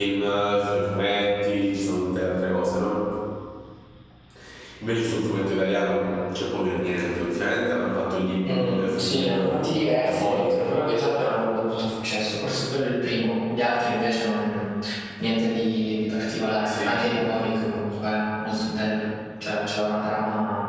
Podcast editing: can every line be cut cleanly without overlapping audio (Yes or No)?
No